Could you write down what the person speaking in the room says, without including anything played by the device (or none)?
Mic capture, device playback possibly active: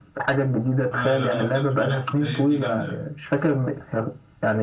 اه لا لا انا بصراحه جربت كارير دي جامده